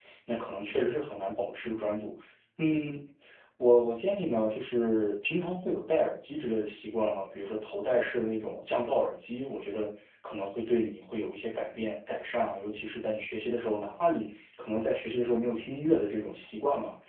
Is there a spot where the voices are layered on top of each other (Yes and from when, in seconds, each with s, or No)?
No